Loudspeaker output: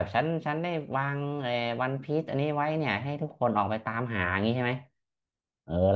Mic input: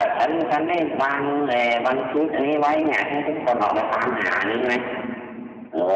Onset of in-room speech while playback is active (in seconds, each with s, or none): none